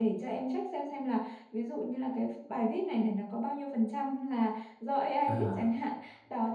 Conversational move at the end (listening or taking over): listening